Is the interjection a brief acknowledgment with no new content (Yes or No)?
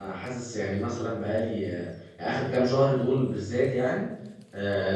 Yes